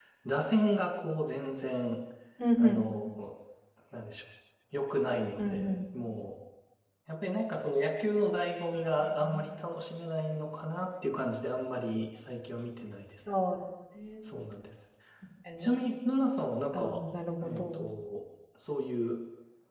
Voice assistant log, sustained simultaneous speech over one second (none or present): none